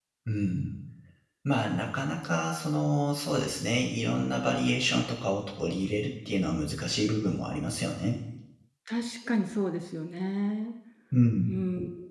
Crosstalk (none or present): none